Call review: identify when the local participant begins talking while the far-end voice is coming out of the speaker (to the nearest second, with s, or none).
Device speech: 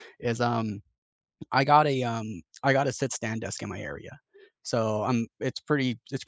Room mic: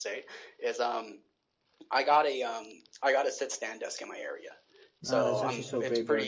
5 s